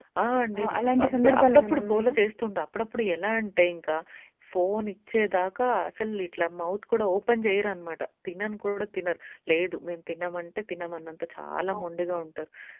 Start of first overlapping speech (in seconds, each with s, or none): 0.6 s